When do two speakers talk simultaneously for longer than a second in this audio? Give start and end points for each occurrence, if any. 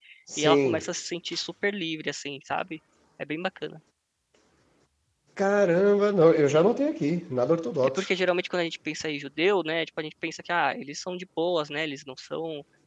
none

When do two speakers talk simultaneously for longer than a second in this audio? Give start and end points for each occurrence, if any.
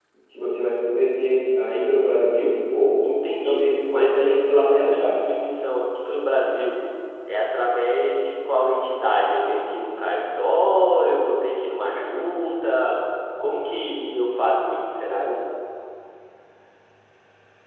3.4-5.2

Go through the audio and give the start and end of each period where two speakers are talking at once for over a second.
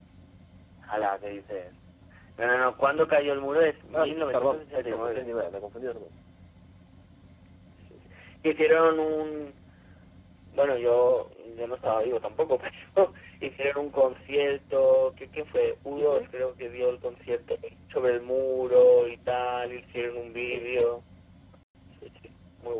3.9-5.3

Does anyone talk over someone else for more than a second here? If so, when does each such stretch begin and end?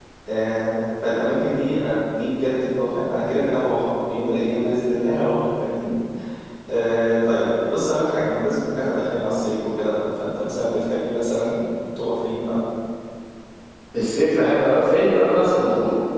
none

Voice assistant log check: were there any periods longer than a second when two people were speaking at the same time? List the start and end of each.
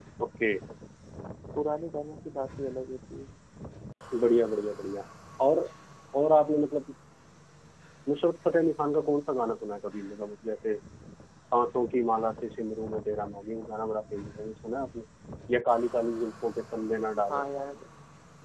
none

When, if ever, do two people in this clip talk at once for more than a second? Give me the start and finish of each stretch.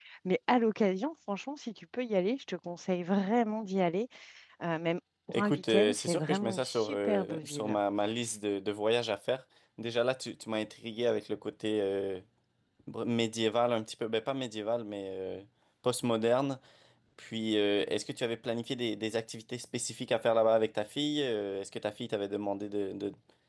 5.3-7.8

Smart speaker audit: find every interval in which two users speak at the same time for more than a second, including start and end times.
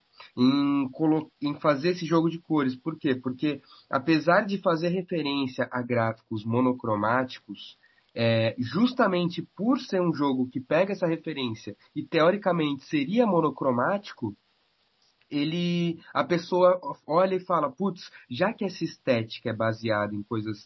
none

